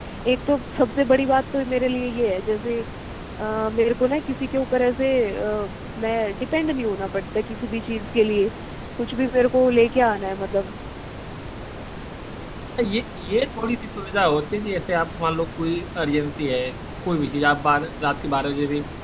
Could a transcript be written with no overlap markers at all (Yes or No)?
Yes